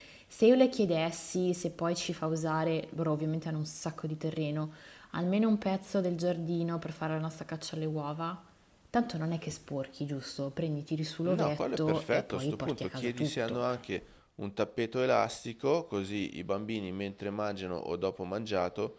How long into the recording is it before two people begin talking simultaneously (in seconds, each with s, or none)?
11.2 s